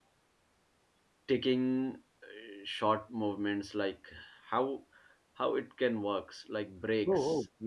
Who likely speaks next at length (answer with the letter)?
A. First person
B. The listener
B